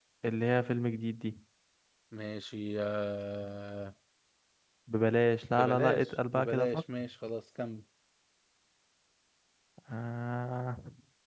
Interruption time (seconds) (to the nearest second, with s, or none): 6 s